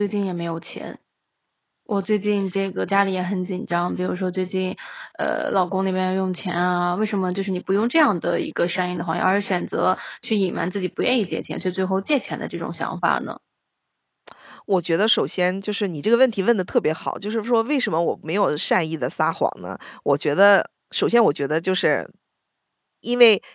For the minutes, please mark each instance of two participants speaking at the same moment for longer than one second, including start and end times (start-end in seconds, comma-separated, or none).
none